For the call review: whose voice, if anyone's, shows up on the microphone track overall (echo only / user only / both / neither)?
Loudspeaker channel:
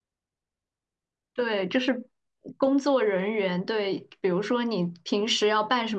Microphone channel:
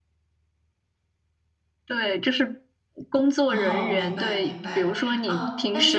both